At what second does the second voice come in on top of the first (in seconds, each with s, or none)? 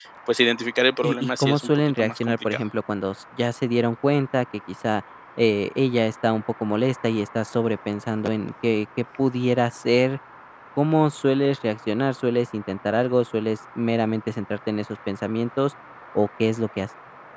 1.0 s